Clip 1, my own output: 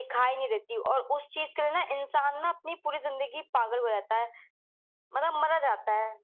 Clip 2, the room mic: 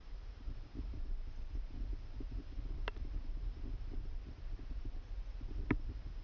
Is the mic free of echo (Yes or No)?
Yes